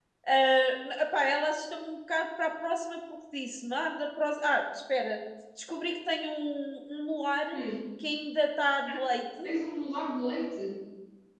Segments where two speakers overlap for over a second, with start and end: none

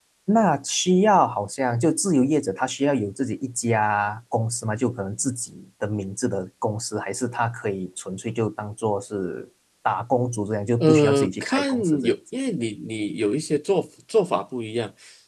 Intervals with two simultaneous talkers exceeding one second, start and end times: 10.8-12.1

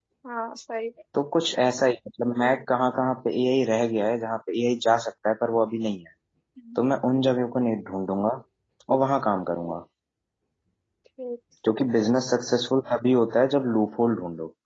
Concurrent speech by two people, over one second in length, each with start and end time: none

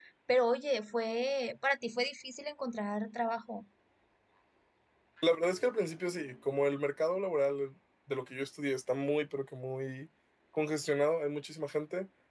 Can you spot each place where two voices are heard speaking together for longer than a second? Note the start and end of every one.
none

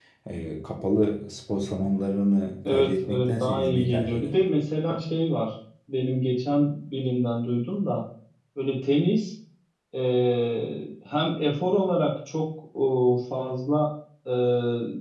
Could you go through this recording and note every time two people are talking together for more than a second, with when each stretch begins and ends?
2.6-4.4

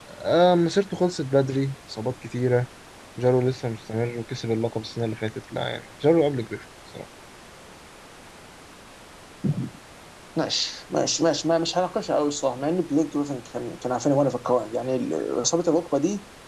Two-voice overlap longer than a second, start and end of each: none

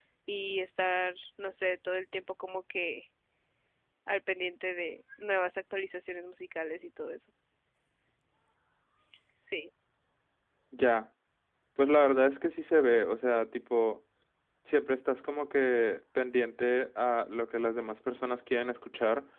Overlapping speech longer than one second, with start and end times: none

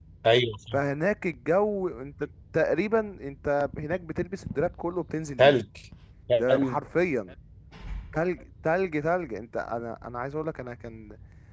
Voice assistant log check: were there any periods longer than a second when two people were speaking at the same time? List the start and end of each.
none

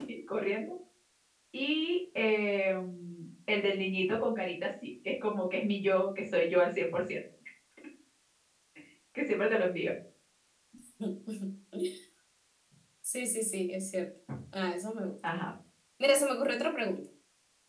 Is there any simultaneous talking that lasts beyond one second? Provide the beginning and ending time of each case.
none

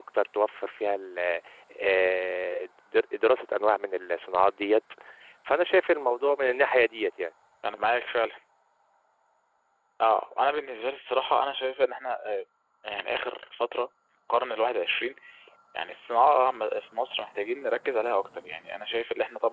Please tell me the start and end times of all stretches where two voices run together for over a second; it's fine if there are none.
none

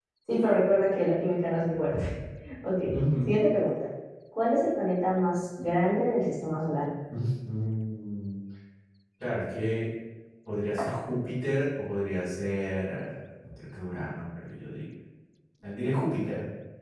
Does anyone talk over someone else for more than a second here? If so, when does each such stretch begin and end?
none

